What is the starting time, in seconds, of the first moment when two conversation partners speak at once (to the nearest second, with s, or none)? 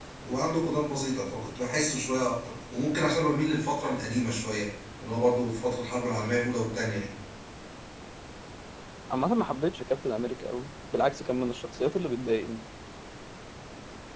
none